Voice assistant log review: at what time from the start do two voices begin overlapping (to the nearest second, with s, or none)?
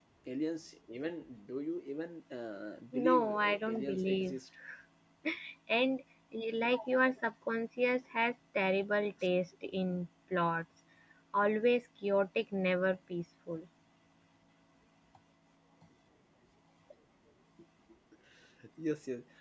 3 s